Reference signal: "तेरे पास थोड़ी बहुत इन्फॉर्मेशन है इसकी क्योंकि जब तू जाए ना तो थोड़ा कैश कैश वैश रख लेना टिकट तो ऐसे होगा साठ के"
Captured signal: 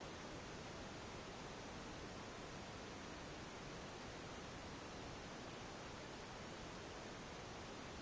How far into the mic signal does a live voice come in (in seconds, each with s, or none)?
none